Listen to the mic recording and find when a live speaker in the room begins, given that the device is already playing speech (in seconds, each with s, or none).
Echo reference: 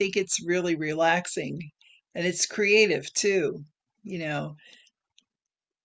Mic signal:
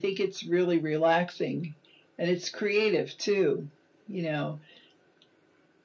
none